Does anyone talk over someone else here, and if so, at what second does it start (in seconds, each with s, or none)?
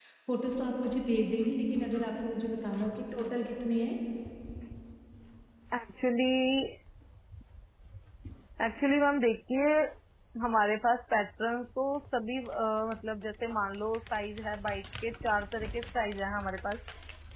none